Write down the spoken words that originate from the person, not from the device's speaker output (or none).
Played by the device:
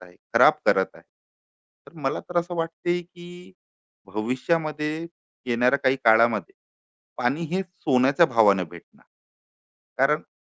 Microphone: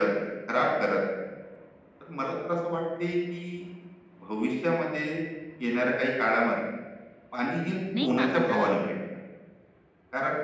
नाही का. आता